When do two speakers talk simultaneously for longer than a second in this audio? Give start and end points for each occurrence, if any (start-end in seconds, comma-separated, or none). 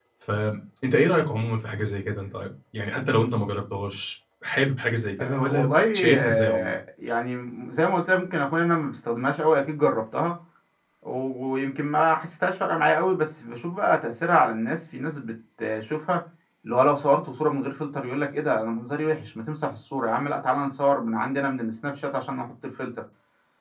5.2-6.8